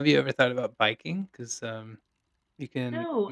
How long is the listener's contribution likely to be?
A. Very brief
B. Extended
B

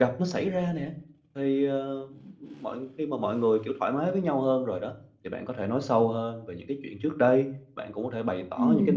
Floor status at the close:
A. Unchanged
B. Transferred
A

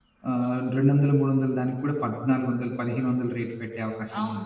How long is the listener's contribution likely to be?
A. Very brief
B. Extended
B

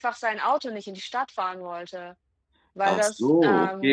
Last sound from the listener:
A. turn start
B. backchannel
A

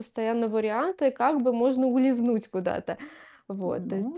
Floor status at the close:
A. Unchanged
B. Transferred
B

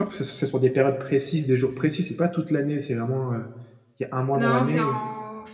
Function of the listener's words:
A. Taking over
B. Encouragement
A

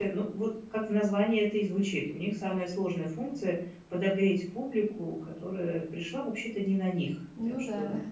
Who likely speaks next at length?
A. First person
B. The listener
A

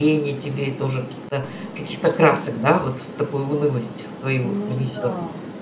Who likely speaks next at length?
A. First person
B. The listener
B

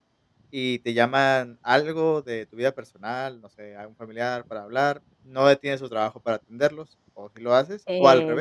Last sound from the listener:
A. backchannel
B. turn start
B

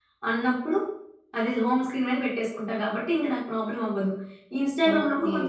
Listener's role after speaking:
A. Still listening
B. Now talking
A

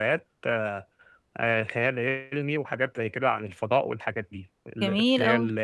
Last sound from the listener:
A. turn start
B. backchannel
B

